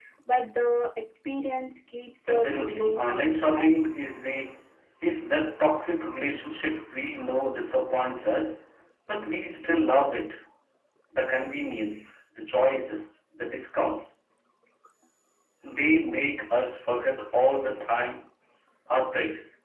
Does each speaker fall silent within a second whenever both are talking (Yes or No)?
No